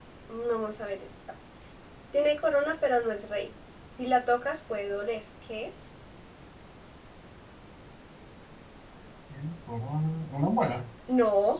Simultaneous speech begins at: none

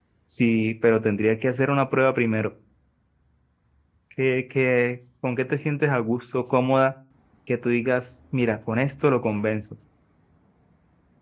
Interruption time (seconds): none

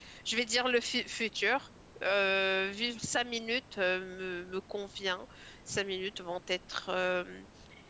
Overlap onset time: none

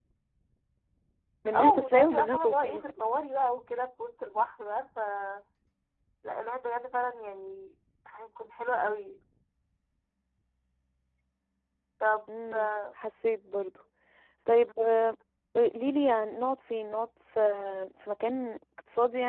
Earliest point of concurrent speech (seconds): 1.5 s

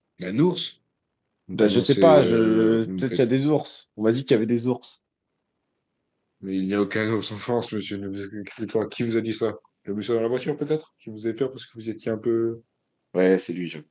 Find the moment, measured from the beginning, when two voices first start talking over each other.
1.5 s

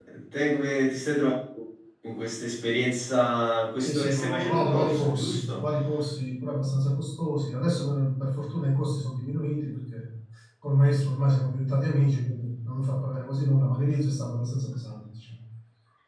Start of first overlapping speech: 3.8 s

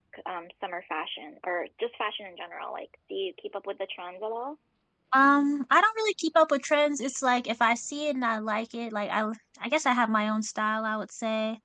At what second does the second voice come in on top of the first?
none

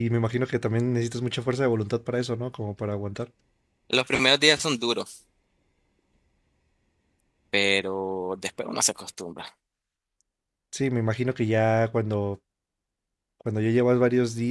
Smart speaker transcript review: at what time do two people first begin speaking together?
none

